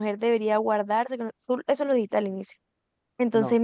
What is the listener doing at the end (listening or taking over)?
listening